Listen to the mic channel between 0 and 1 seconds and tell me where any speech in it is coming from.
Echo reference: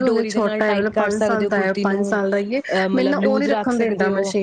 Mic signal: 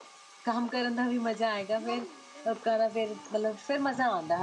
user only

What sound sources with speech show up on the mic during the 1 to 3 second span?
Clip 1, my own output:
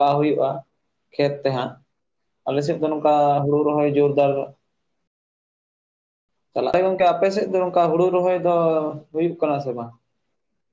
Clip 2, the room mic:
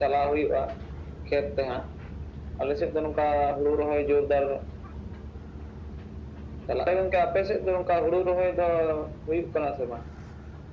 echo only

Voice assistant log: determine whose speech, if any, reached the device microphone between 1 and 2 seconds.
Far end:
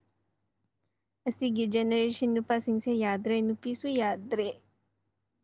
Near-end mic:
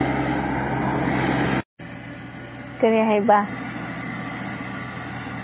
neither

